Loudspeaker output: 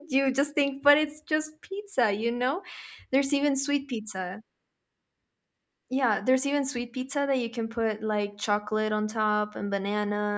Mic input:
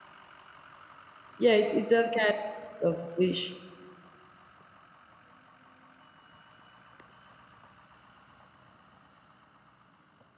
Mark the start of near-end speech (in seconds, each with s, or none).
1.4 s